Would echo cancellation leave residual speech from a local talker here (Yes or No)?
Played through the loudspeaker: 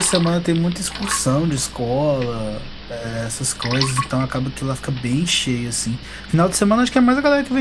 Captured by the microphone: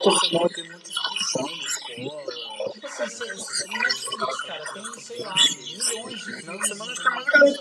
Yes